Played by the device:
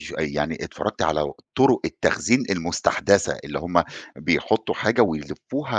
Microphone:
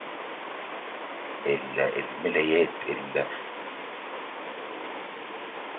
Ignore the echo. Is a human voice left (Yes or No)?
Yes